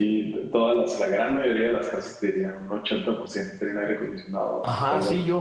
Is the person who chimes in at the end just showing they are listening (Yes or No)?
No